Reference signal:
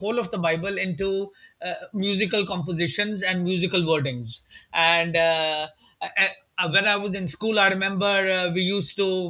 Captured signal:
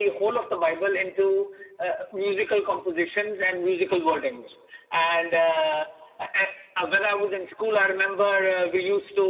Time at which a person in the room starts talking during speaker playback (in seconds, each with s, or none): none